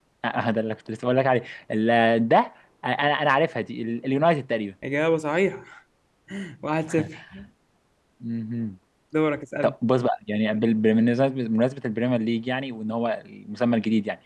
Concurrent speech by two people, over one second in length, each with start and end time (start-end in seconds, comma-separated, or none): none